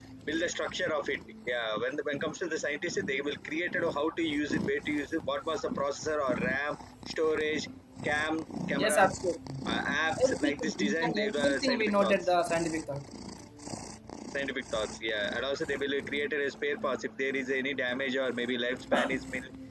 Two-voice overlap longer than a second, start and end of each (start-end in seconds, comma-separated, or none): 10.2-12.3